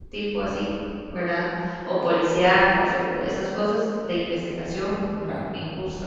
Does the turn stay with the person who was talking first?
Yes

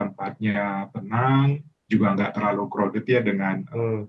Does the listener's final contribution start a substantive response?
No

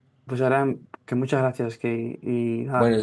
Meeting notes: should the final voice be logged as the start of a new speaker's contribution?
Yes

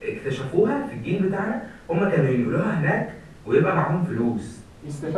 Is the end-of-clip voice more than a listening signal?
Yes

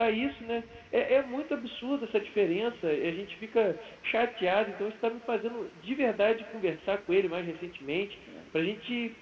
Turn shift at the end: No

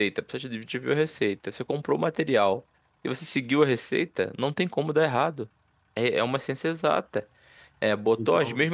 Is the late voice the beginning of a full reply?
No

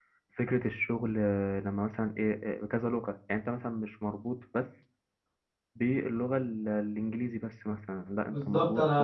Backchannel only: No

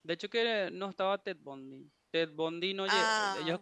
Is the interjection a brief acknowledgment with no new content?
Yes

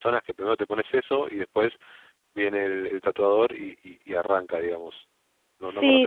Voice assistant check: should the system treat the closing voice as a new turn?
Yes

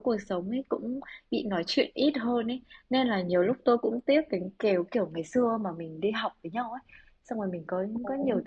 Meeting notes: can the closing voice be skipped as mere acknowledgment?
Yes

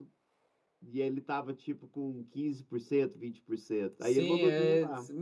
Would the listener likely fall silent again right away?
No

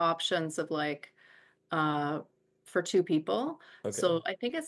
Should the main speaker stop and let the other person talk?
No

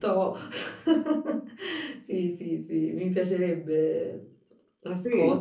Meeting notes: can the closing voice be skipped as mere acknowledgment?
No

